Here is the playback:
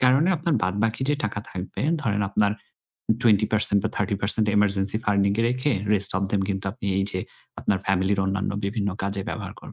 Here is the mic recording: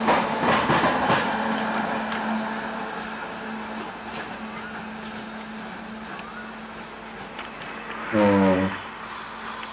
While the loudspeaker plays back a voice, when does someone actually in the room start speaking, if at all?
8.1 s

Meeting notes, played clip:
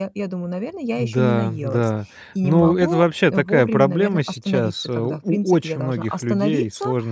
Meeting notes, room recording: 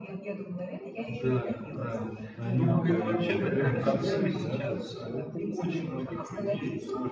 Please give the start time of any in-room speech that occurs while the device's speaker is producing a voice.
2.4 s

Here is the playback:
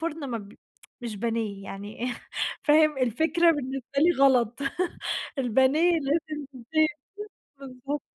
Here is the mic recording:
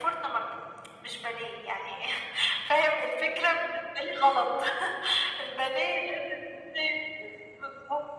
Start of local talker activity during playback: none

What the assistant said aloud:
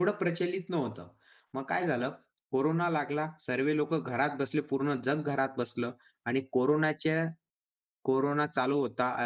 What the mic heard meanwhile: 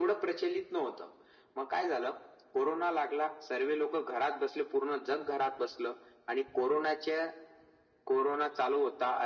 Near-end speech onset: none

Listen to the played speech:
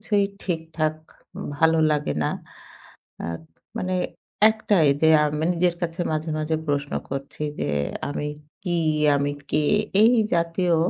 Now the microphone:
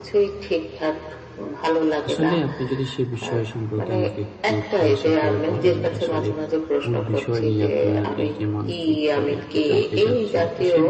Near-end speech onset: 2.1 s

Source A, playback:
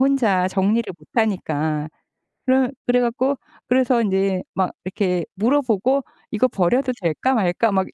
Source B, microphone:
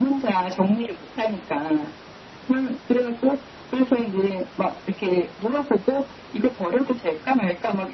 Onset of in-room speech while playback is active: none

